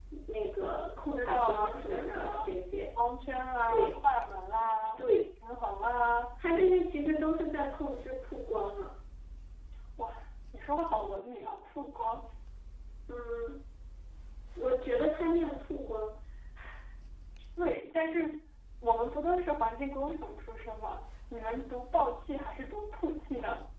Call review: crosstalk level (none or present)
present